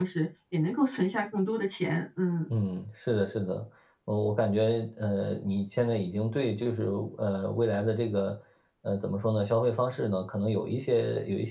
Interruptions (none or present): none